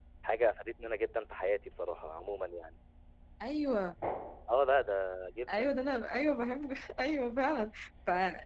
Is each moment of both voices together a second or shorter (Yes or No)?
Yes